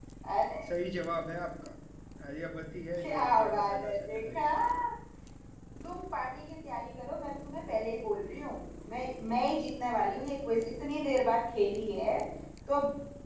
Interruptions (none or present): present